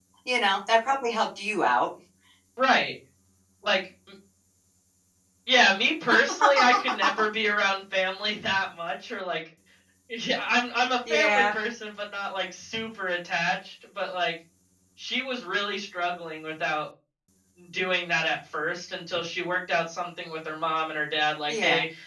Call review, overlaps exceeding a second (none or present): none